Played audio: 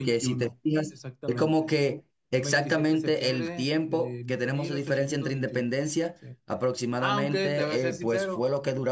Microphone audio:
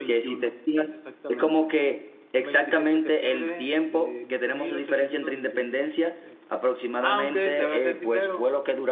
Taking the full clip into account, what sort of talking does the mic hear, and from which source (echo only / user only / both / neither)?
echo only